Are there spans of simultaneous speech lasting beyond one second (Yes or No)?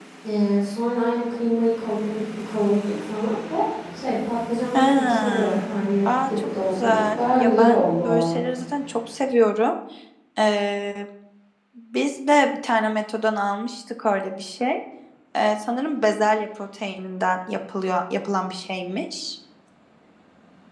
Yes